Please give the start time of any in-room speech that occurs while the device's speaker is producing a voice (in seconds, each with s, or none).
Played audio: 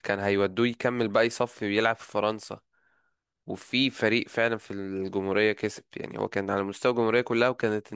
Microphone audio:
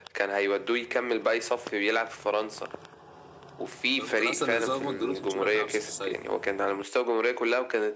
4.0 s